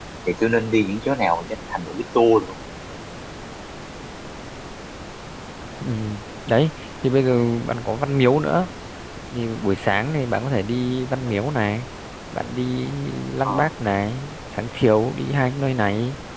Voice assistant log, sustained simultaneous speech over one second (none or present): none